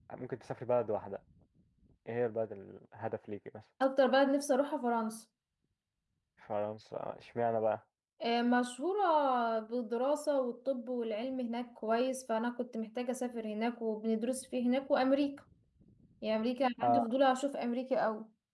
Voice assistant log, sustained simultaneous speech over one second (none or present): none